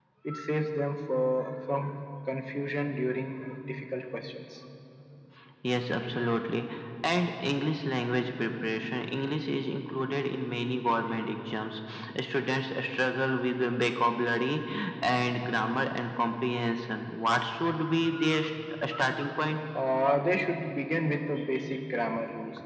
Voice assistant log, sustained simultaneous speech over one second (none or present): none